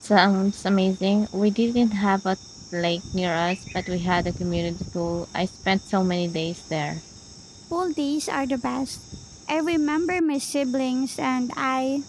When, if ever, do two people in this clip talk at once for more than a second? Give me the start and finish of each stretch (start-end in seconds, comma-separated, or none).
none